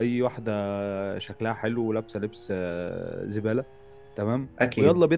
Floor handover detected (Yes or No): No